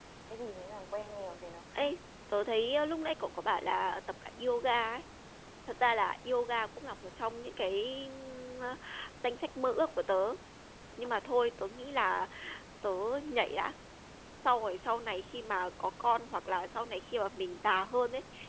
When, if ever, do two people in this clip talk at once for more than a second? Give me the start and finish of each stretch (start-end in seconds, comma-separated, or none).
none